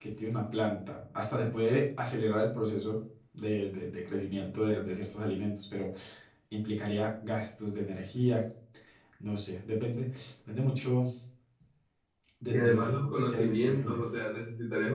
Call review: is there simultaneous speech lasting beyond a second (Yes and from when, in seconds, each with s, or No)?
Yes, from 12.5 s